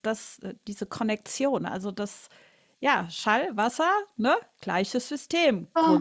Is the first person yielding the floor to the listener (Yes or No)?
Yes